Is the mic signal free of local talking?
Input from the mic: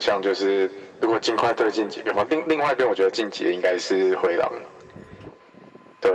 Yes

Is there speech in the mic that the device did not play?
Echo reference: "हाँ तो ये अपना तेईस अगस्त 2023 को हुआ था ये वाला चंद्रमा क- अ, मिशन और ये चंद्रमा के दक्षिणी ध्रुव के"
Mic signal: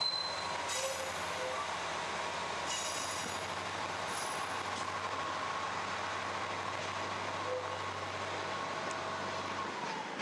No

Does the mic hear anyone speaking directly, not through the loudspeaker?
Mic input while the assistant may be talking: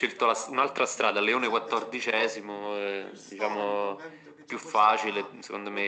Yes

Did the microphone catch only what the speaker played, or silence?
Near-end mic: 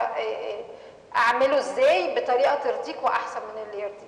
Yes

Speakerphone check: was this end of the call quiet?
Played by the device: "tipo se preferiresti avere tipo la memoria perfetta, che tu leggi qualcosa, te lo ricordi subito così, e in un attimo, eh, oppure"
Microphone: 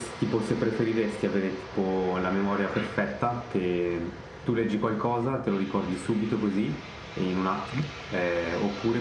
Yes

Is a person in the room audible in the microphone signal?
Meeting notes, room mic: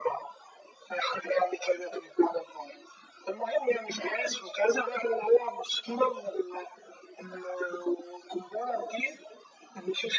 No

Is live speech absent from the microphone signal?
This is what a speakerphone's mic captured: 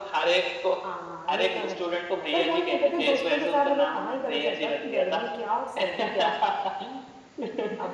Yes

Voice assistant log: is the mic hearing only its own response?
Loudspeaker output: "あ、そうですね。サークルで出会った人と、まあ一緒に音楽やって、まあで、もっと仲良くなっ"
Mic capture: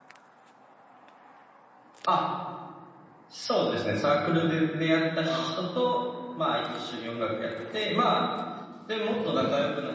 No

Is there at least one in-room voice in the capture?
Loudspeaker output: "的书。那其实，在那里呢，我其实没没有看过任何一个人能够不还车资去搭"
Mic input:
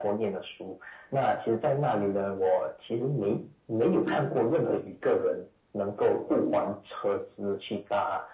No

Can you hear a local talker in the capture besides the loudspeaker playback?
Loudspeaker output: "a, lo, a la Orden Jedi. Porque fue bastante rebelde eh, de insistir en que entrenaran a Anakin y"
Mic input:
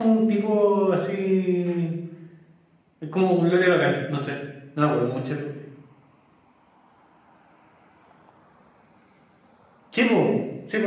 Yes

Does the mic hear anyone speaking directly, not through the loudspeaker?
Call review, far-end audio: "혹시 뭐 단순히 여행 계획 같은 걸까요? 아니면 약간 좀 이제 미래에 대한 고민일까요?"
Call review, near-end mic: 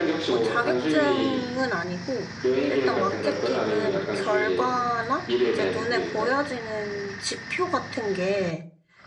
Yes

